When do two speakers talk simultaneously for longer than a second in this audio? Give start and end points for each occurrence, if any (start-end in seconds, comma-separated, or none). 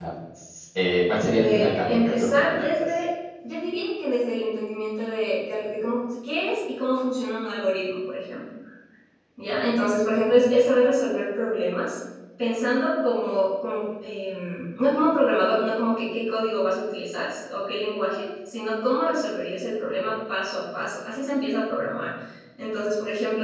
1.2-3.0